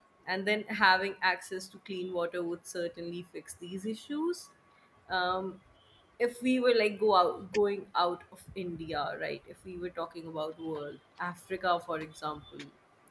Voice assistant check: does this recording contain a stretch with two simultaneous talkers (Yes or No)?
No